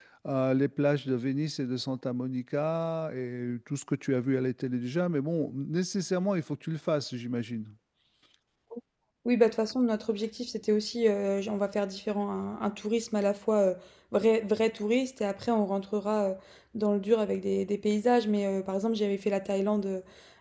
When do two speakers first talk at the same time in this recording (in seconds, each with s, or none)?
none